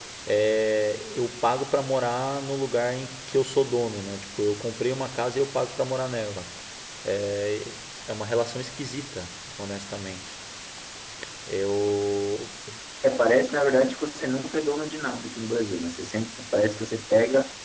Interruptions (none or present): none